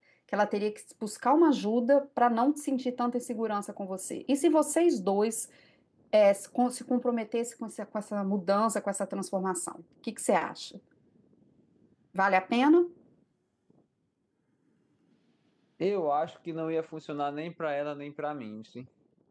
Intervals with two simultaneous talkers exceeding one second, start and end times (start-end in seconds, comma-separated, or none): none